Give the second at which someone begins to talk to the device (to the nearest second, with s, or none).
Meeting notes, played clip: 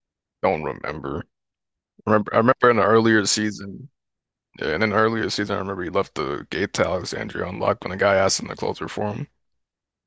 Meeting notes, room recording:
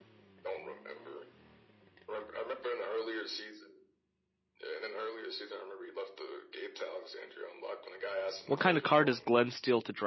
8 s